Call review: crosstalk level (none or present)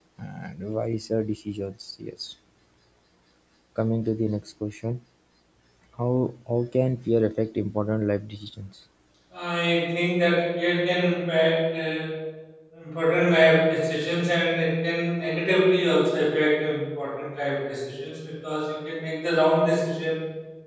none